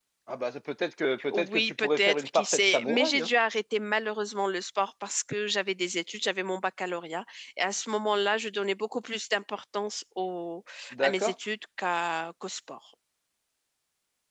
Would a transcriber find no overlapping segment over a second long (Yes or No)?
No